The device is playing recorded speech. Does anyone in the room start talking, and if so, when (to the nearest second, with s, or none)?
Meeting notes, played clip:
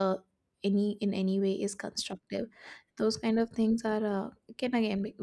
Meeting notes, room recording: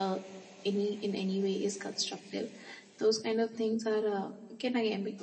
none